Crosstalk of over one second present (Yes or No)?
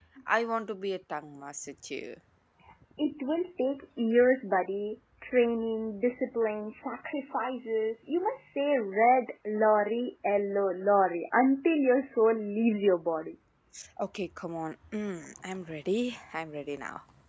No